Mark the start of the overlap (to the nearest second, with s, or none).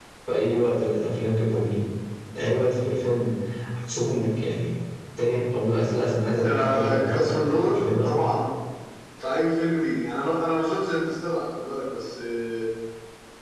6 s